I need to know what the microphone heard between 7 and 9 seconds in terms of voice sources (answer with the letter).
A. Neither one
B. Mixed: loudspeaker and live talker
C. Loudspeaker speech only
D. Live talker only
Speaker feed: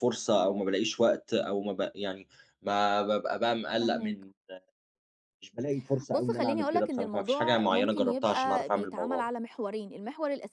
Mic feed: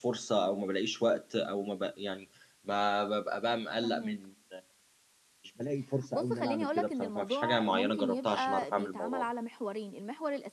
C